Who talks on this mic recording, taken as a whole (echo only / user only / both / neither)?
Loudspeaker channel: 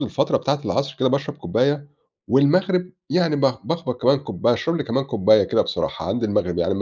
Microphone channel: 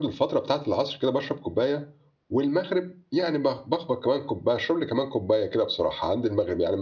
echo only